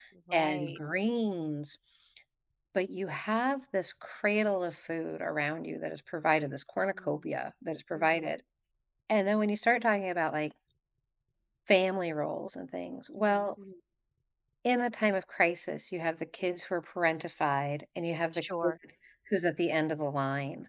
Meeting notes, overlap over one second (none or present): none